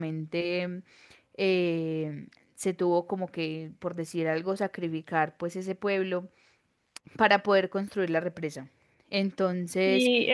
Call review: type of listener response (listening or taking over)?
taking over